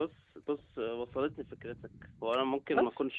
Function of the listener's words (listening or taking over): listening